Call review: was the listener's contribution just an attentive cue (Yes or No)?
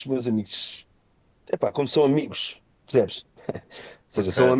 Yes